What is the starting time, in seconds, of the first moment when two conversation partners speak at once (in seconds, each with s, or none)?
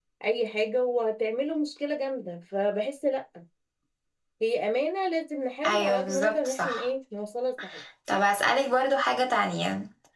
5.6 s